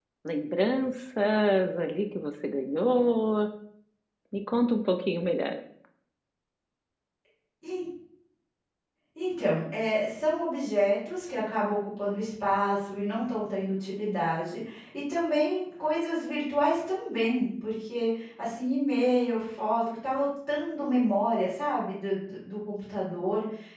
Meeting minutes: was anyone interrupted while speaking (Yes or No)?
No